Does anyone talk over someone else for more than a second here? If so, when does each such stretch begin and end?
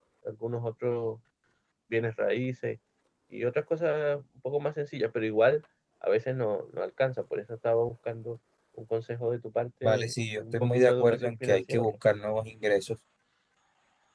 9.8-11.9

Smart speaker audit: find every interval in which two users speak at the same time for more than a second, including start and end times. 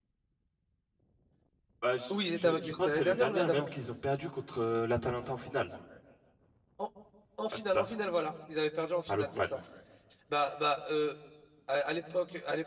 2.4-3.7

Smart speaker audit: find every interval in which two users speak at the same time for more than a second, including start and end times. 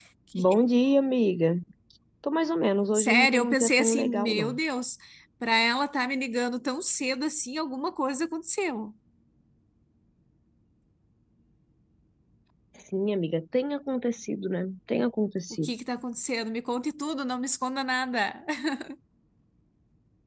2.9-4.6

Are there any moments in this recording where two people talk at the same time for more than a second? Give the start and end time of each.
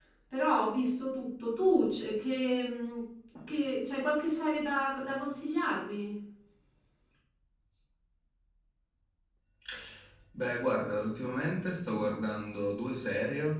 none

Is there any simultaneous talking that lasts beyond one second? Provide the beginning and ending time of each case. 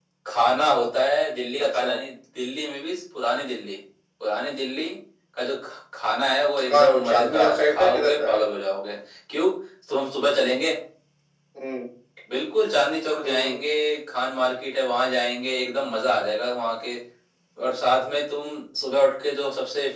6.6-8.4

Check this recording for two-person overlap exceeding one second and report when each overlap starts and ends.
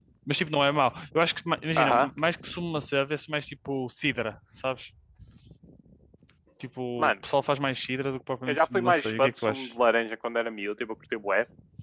8.5-9.7

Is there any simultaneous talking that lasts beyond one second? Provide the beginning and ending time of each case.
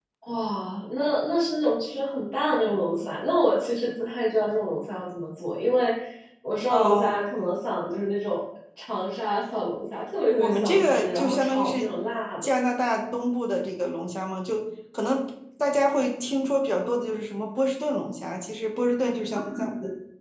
10.4-11.9

